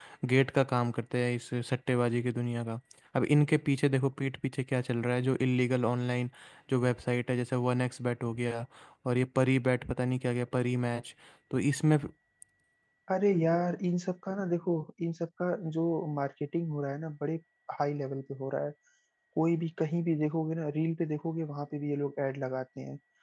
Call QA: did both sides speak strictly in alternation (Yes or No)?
Yes